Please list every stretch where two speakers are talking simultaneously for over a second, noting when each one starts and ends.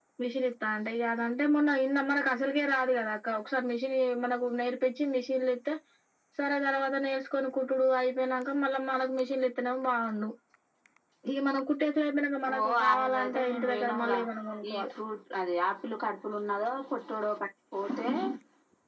12.5-14.2

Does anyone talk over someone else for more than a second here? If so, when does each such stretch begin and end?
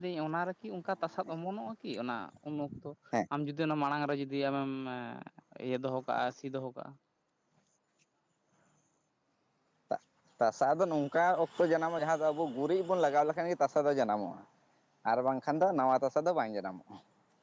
none

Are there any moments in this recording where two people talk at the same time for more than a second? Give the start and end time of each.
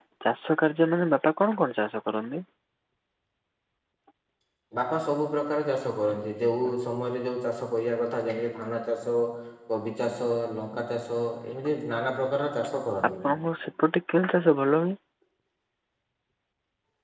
none

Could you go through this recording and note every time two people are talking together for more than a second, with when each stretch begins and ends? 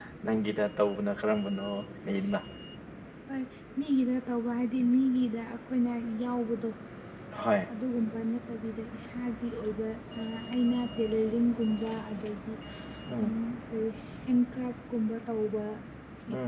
none

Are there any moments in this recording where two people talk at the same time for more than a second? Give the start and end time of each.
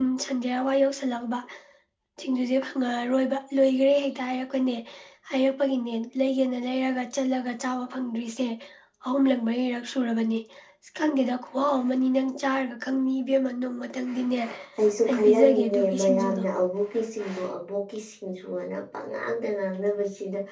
15.1-16.4

